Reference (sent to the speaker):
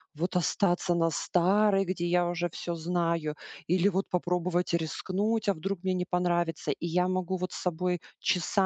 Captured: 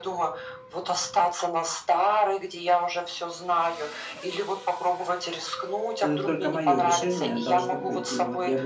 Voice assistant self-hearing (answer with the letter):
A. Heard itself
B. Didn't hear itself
A